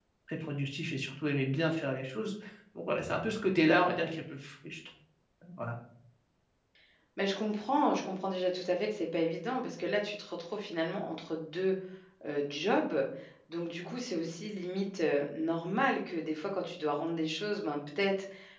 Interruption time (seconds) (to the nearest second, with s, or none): none